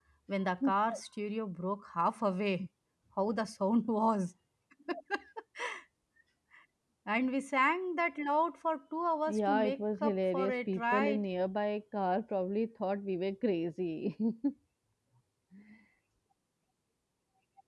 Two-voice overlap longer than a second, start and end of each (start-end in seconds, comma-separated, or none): 9.3-11.2